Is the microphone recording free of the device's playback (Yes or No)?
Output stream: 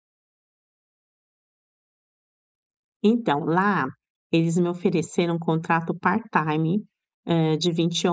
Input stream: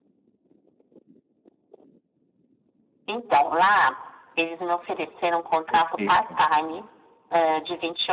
No